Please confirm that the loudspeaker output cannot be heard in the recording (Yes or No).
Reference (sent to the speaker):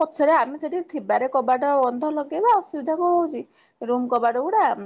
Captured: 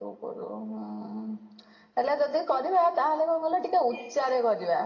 Yes